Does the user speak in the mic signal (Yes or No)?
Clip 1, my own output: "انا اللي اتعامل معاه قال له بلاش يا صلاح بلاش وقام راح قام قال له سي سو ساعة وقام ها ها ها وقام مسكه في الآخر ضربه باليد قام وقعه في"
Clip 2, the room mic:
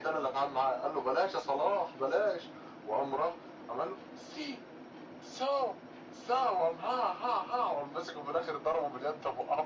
No